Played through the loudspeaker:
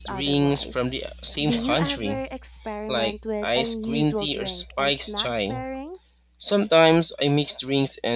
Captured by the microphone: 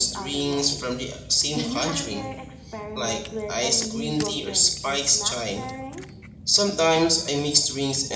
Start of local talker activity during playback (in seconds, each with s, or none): none